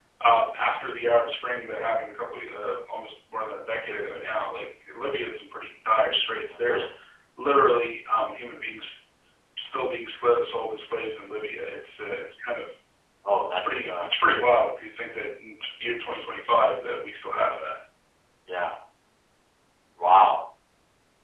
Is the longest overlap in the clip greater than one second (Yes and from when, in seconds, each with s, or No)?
No